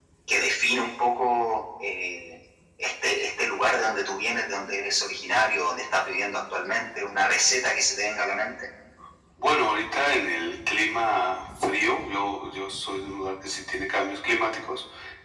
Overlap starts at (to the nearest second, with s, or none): none